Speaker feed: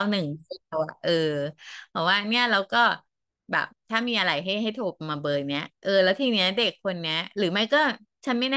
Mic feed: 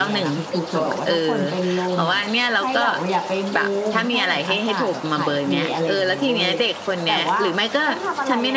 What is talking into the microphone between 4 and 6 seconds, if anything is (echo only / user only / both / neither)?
both